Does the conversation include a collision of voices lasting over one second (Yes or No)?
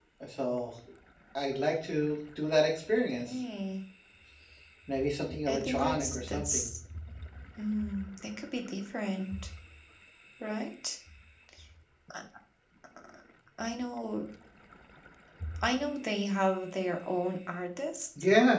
Yes